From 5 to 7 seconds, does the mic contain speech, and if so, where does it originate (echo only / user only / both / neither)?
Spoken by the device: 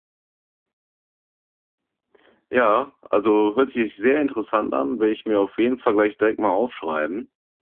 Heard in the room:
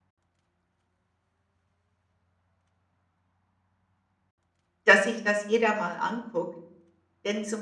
user only